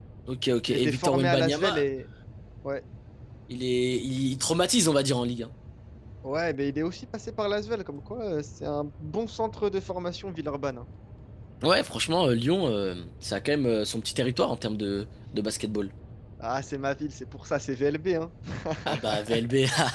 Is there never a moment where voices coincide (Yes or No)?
No